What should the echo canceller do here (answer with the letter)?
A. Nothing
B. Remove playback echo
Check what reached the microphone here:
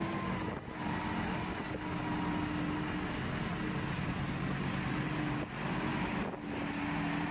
A